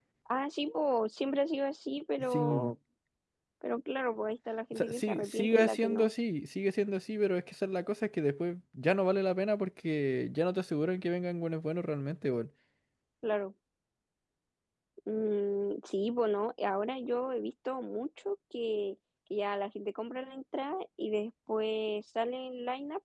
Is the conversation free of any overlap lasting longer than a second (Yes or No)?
No